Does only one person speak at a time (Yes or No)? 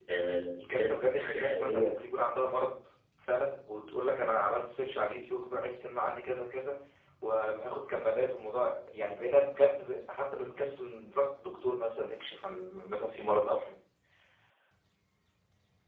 No